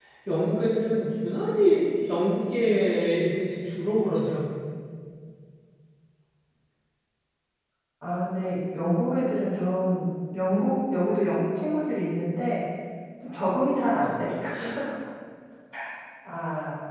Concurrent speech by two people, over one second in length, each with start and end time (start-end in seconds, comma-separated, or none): none